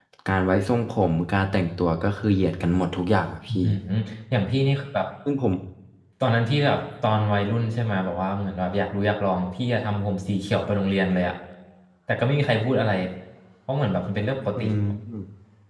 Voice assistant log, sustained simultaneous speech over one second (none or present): none